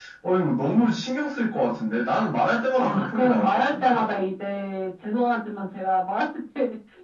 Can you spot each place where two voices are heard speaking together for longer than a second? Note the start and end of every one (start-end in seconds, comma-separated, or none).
2.8-4.0